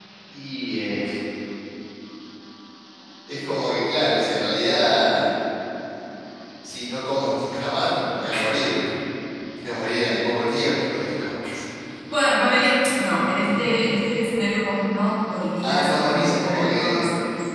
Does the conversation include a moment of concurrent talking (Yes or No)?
Yes